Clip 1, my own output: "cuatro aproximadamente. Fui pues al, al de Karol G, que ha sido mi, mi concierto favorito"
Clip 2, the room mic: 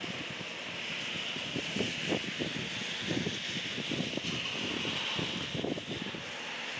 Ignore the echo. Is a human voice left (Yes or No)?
No